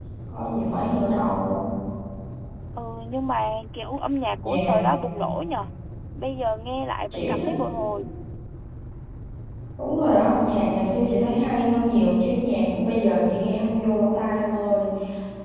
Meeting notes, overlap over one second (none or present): none